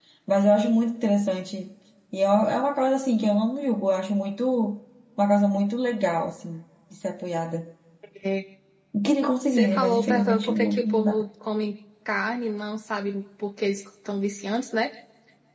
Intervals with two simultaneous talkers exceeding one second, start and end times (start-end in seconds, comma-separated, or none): 9.5-11.1